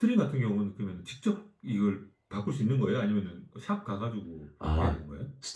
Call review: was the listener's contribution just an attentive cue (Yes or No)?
No